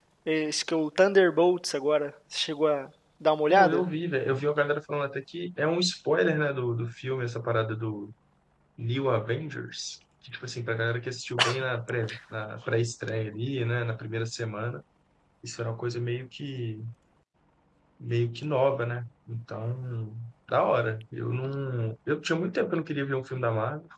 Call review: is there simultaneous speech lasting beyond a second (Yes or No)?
No